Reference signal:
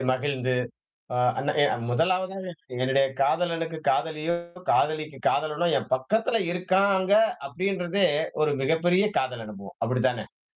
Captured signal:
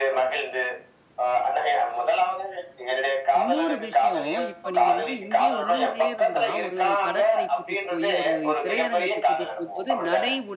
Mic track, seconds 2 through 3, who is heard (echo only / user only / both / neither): echo only